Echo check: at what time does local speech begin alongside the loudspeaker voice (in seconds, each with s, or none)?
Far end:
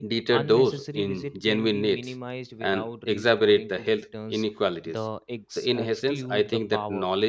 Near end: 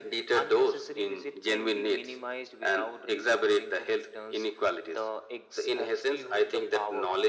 none